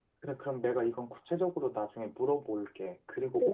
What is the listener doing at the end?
taking over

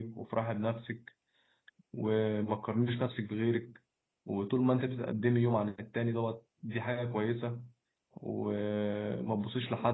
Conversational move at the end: listening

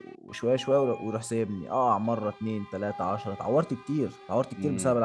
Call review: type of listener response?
taking over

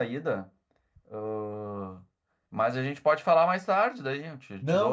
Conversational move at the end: taking over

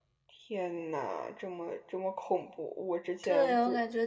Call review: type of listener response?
taking over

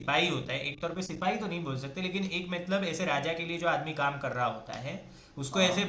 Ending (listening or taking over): listening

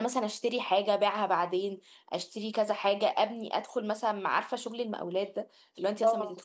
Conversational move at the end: listening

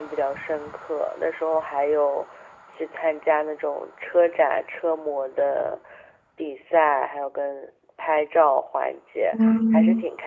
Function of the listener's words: listening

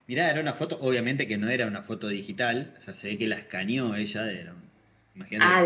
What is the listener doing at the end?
taking over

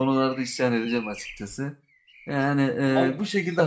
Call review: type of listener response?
listening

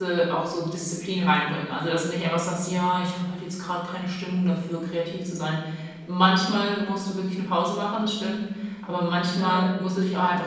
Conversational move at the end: listening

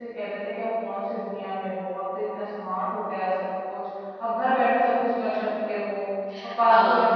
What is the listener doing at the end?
taking over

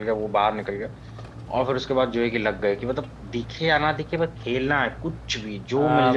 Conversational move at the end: taking over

